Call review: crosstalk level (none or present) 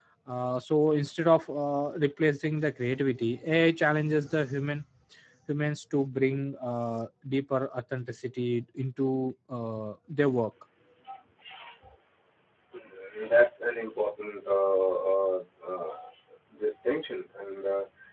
none